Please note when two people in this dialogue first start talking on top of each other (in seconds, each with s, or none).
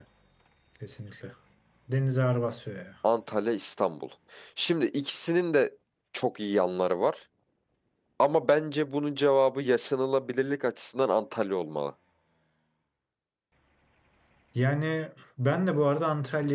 none